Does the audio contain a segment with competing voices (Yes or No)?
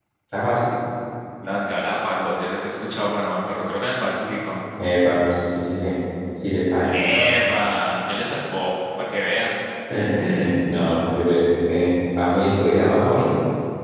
No